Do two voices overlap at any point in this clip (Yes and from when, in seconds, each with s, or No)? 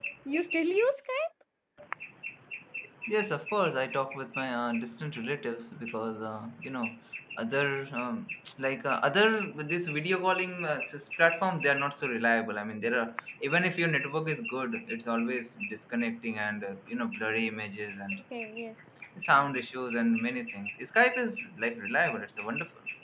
No